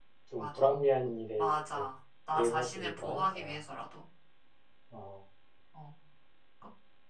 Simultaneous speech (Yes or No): Yes